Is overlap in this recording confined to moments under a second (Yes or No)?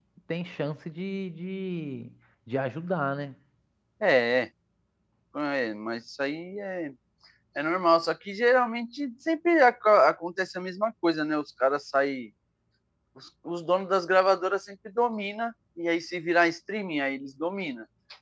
Yes